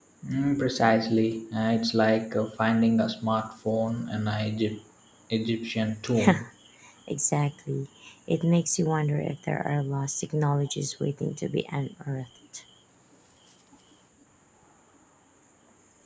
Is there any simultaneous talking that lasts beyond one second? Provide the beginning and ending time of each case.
none

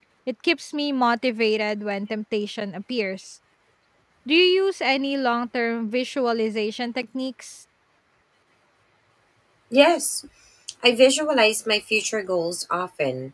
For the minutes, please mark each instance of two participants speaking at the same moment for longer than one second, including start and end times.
none

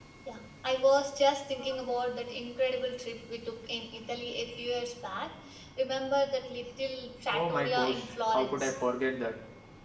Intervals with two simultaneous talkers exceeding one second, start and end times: 7.3-8.7

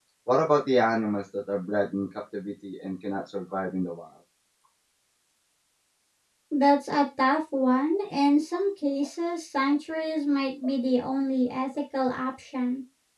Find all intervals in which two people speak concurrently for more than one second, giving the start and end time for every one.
none

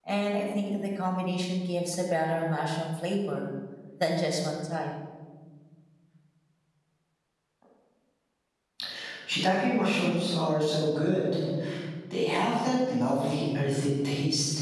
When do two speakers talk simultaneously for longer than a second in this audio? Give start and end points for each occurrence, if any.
none

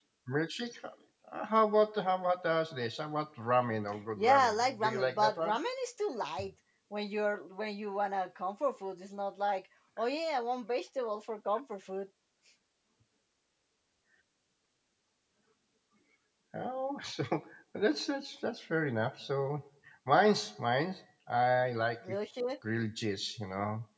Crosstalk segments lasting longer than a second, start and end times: 4.2-5.6

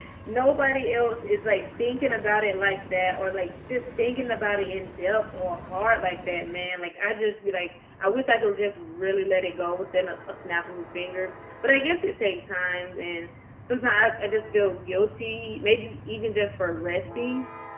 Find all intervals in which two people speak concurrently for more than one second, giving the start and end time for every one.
none

